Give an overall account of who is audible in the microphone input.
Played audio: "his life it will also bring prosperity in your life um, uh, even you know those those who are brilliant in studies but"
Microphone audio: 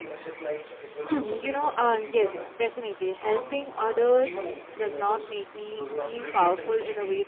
both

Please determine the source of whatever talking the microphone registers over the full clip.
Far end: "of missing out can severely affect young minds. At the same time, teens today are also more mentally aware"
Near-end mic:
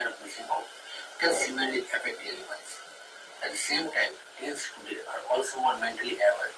echo only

